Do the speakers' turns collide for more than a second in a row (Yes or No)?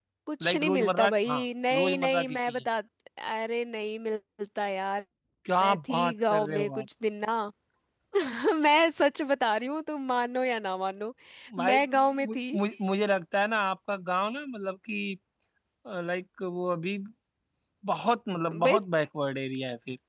Yes